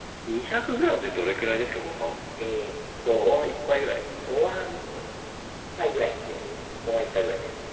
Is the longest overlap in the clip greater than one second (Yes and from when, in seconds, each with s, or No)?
No